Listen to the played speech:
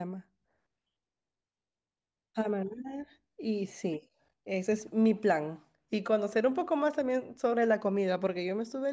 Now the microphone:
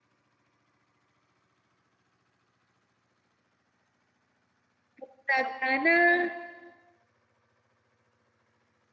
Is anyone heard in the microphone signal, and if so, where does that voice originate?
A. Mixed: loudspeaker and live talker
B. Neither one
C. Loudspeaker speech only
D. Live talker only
D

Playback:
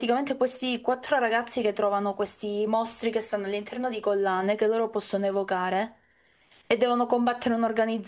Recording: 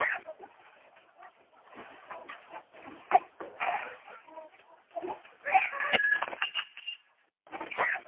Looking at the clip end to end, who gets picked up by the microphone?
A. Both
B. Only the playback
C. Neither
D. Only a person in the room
C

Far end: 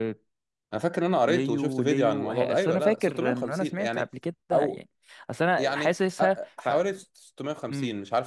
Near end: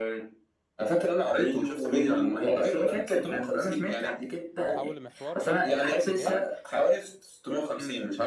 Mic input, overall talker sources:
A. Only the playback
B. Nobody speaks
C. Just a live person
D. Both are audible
D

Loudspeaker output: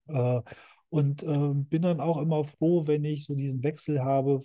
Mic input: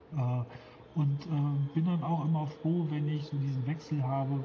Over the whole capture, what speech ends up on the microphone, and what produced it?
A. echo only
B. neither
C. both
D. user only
A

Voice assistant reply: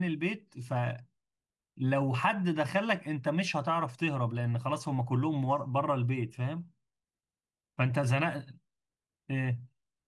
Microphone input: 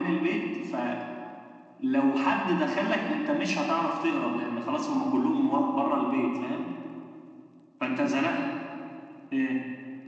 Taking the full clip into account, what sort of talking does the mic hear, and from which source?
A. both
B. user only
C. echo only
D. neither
C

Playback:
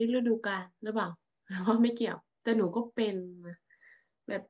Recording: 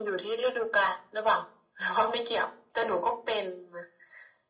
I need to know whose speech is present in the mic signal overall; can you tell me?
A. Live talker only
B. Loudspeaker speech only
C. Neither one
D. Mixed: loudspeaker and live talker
B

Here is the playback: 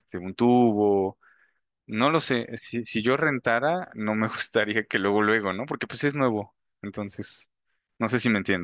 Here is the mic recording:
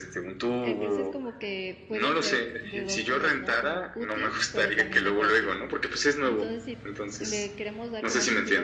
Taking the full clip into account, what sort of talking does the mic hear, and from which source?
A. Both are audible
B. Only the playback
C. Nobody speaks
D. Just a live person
A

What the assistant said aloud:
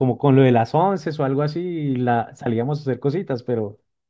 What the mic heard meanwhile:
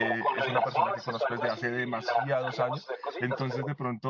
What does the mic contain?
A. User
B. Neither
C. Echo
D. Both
D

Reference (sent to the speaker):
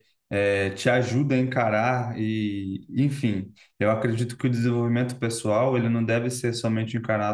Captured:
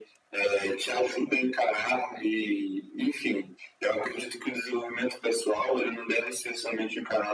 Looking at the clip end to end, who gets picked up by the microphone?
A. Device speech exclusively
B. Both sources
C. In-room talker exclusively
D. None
A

